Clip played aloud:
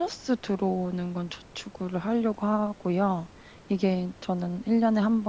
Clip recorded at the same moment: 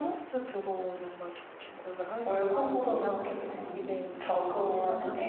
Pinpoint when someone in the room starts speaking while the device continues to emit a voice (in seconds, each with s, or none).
2.2 s